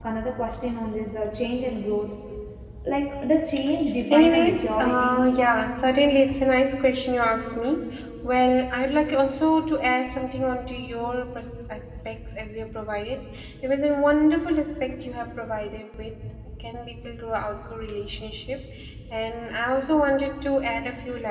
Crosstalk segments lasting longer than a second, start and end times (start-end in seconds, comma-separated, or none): 4.1-5.3